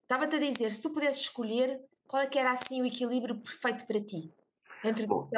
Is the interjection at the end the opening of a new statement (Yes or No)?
Yes